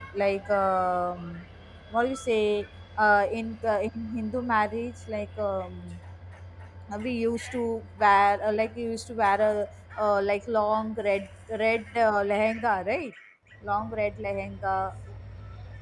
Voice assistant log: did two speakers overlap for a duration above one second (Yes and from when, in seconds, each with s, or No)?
No